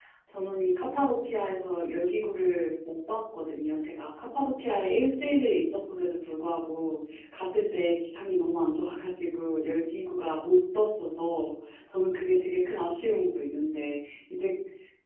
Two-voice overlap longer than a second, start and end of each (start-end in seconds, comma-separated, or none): none